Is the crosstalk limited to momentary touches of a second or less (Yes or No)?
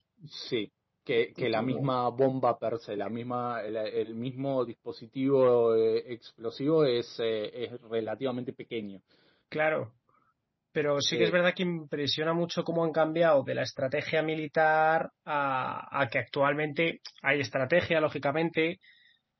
Yes